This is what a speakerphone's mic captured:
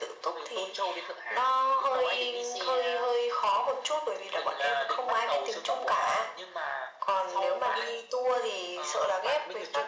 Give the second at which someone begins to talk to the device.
none

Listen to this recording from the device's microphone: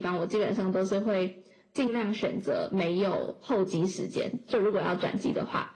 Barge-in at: none

